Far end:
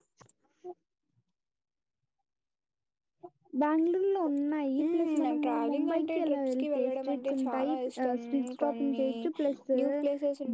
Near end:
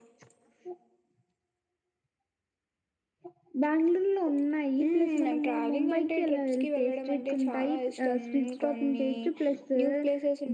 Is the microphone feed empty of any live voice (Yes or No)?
Yes